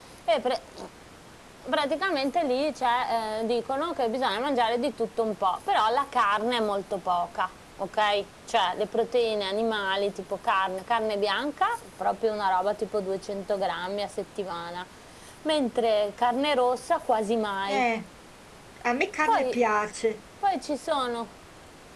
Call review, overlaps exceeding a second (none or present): none